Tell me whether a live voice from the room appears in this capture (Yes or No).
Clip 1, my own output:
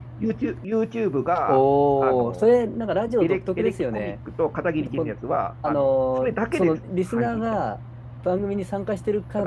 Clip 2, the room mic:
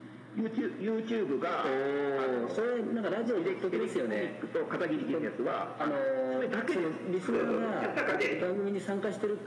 Yes